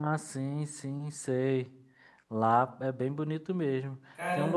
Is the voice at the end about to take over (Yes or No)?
Yes